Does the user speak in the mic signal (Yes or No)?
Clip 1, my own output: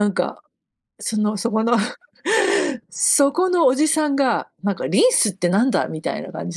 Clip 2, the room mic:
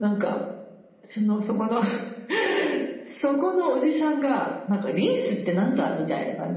No